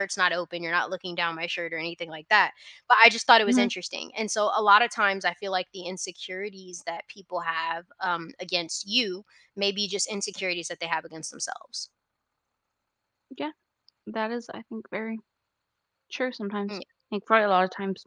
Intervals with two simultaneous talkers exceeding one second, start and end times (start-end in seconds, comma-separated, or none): none